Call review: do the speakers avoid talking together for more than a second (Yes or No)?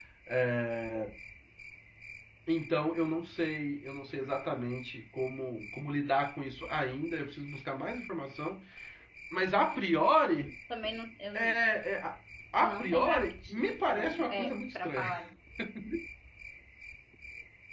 No